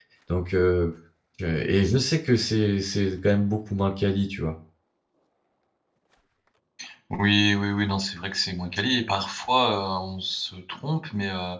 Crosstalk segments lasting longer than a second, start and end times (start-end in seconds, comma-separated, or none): none